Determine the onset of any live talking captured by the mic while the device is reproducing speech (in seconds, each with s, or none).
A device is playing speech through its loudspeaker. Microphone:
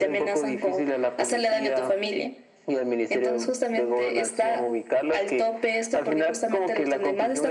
none